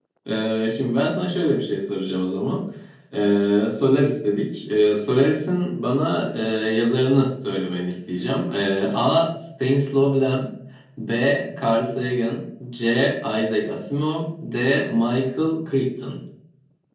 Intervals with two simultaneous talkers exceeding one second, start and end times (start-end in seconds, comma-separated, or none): none